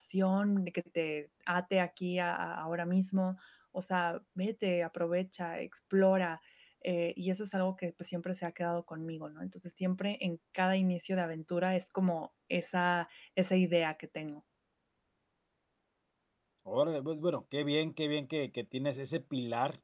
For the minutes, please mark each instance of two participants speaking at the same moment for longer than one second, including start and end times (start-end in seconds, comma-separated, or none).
none